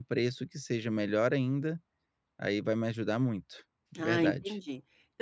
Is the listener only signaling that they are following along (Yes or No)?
No